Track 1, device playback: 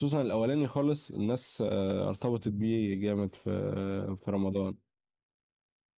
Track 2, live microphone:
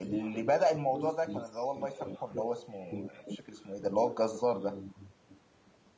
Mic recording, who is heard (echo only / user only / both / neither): both